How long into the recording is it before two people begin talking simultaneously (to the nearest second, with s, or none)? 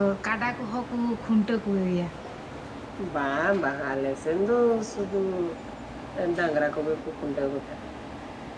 none